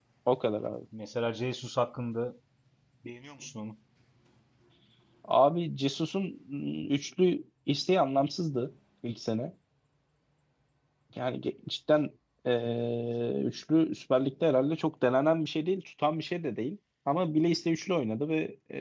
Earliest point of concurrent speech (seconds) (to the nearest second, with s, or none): none